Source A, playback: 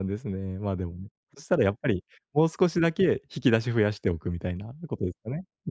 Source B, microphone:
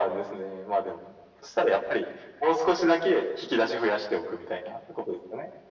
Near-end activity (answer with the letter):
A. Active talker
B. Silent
B